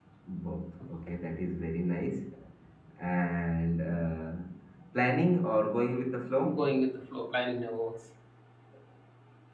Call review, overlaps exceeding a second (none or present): none